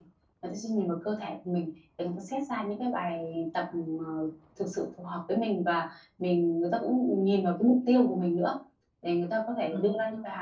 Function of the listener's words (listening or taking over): listening